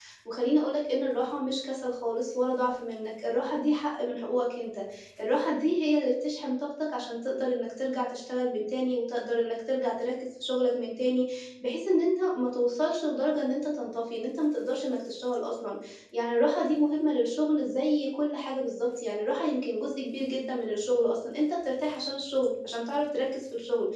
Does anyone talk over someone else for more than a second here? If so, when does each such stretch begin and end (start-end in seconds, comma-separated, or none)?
none